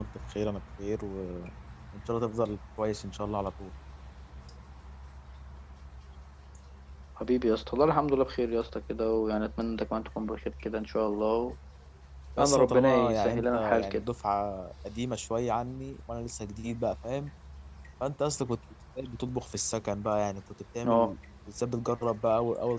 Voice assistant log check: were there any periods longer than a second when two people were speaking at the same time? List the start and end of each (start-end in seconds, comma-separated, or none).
12.4-14.1